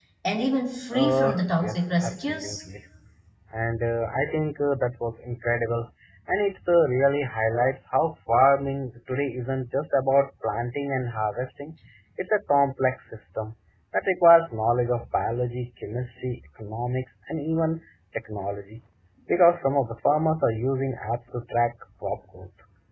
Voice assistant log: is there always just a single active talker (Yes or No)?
No